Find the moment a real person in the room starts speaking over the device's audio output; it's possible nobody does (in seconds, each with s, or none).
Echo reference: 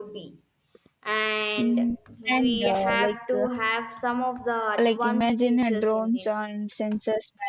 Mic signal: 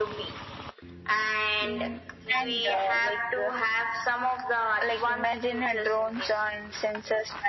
none